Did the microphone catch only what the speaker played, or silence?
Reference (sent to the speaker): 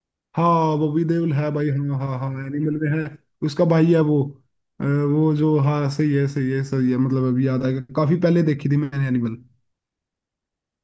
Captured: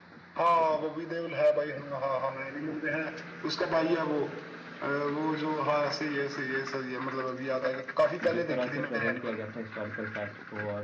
No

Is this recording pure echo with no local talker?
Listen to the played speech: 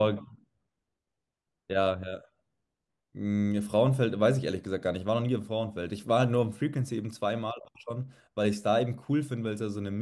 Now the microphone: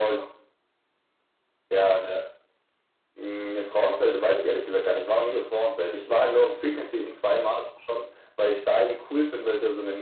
Yes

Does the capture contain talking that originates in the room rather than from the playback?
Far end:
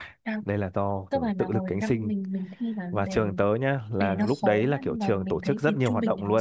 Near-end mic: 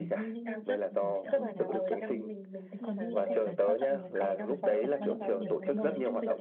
Yes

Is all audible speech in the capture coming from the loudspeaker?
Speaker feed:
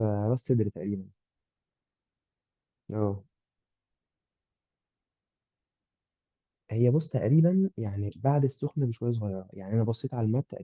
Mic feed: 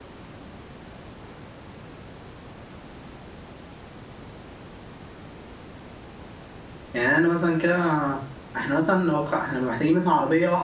No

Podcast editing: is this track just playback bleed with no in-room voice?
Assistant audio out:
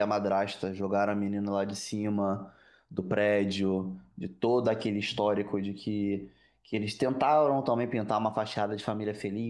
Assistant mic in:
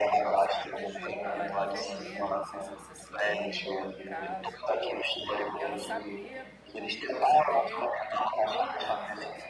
No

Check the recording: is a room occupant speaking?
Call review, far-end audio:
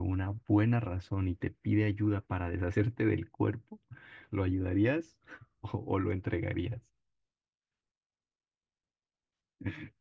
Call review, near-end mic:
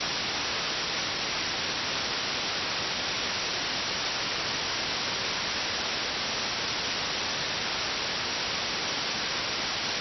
No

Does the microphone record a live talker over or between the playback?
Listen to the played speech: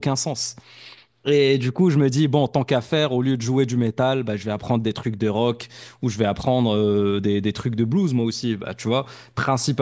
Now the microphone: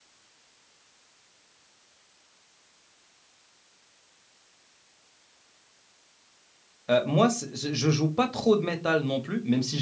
Yes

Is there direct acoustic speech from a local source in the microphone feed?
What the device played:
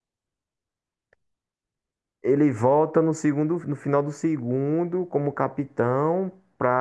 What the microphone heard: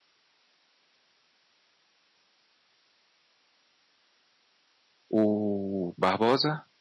Yes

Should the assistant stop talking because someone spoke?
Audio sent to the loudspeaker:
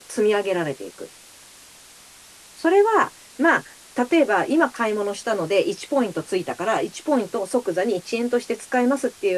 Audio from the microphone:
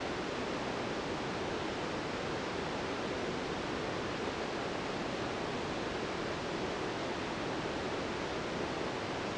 No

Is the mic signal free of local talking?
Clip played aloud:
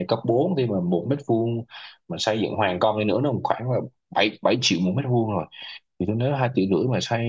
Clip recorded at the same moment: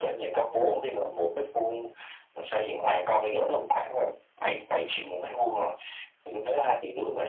Yes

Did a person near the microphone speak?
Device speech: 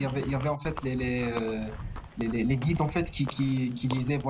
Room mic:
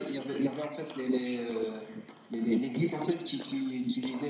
No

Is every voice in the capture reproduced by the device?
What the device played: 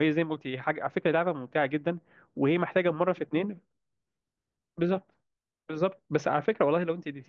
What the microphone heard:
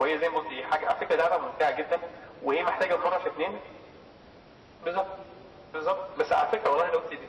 Yes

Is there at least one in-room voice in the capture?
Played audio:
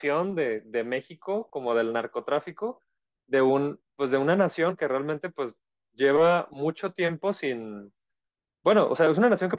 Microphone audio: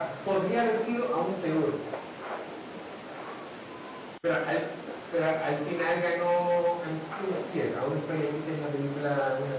Yes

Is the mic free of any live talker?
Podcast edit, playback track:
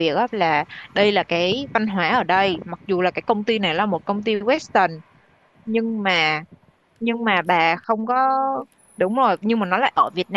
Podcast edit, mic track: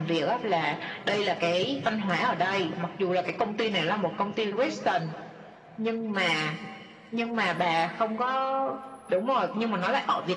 Yes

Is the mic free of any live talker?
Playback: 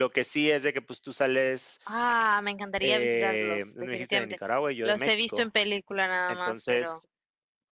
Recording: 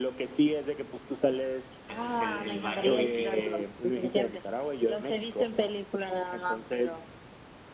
No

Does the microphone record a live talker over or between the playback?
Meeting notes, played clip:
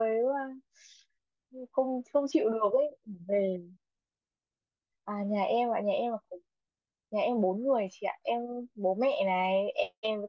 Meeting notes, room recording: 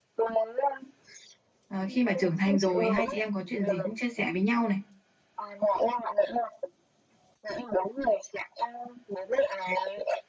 Yes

